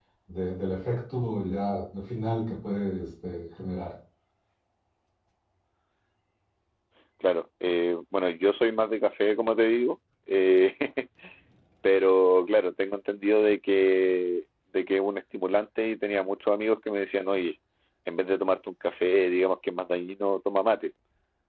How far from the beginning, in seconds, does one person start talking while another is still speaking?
none

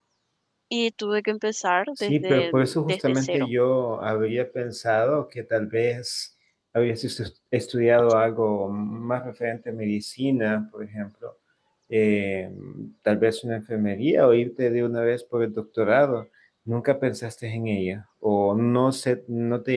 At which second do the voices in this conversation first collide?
2.0 s

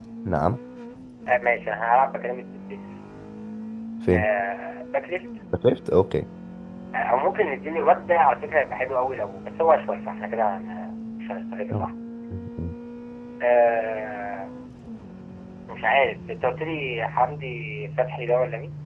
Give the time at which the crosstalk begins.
none

